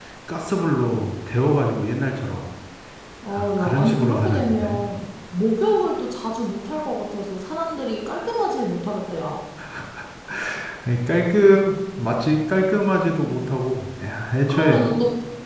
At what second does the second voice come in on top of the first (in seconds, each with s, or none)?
3.3 s